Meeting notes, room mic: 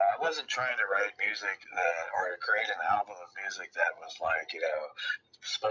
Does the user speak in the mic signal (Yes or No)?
No